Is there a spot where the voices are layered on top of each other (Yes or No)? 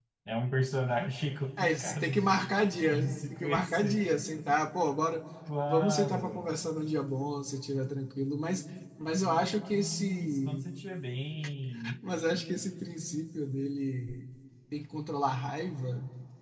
Yes